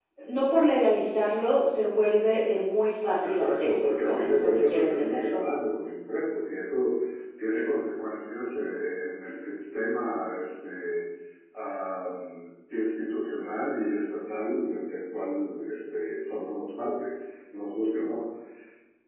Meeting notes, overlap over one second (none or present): present